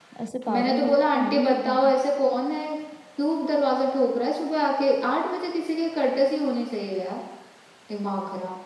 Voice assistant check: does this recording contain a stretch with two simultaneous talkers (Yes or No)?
Yes